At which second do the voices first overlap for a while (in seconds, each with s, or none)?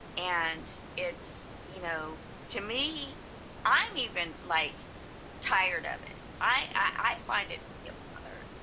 none